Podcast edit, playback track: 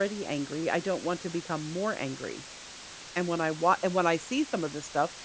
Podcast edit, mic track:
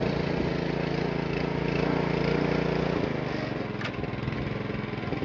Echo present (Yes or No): No